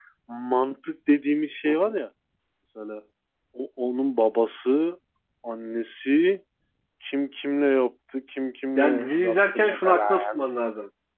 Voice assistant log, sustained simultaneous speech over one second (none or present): present